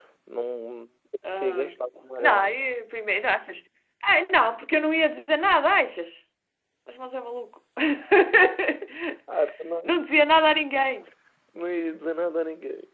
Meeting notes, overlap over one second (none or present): present